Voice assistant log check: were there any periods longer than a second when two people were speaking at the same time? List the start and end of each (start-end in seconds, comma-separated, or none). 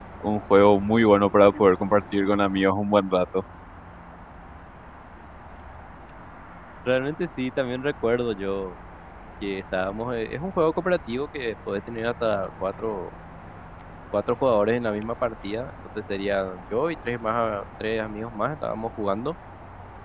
none